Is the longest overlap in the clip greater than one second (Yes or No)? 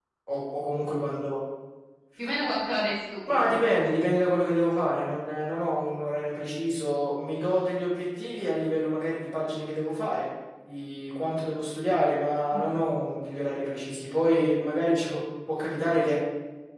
No